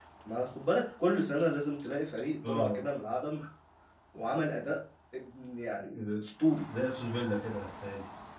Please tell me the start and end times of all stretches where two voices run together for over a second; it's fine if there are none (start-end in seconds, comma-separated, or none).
none